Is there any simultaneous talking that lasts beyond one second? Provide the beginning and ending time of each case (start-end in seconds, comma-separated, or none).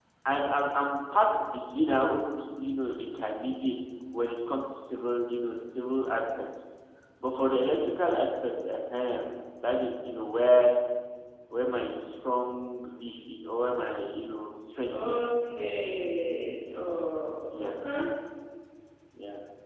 none